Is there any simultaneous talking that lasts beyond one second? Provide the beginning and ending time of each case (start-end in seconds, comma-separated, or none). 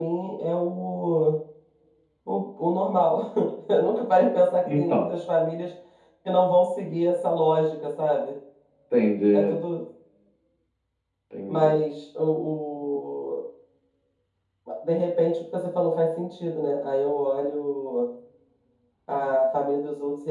none